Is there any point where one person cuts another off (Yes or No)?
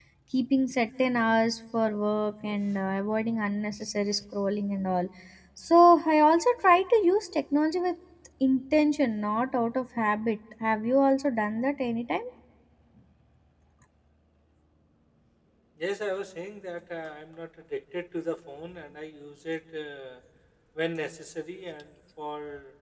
No